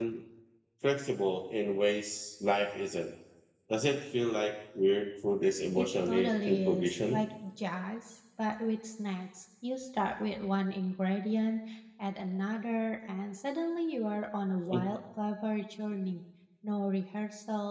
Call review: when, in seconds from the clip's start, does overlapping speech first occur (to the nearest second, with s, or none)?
6 s